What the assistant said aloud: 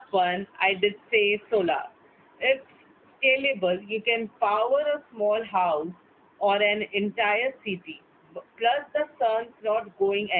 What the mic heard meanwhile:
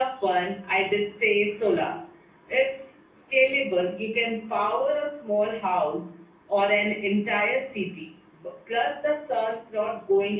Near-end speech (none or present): none